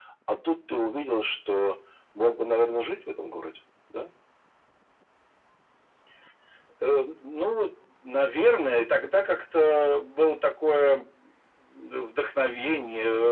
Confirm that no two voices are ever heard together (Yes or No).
Yes